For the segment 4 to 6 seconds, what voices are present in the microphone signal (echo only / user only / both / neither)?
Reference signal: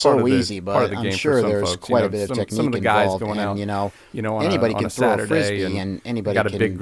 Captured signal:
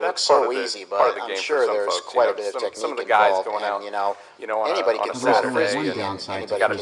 both